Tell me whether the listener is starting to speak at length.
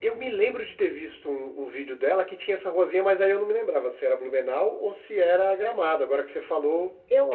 Yes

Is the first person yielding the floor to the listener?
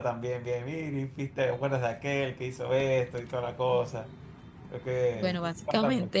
Yes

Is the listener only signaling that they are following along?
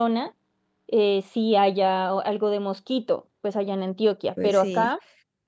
Yes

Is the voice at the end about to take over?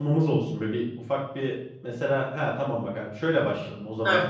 No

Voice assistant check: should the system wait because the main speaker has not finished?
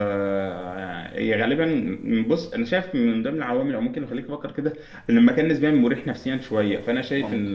Yes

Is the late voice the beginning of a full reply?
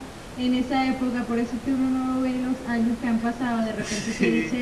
No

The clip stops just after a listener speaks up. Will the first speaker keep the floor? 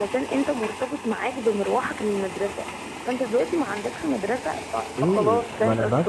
No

